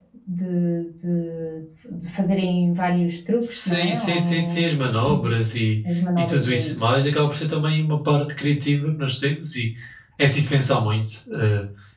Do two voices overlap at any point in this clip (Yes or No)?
Yes